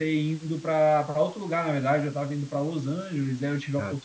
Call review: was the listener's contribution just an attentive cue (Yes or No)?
Yes